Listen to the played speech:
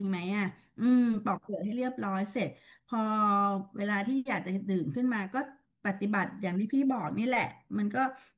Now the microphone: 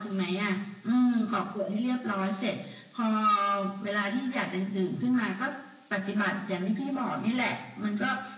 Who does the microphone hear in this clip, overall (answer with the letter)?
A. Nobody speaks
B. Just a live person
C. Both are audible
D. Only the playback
D